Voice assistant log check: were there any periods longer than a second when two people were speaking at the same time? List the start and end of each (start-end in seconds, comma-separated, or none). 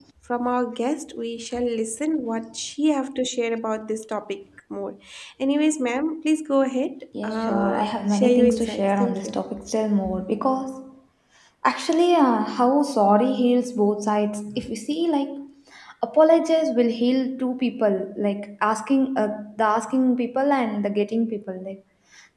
7.2-9.4